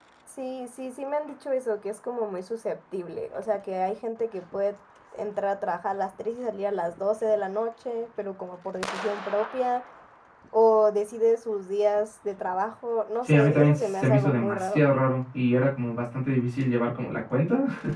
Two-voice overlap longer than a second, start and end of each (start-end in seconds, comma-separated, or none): 13.2-14.8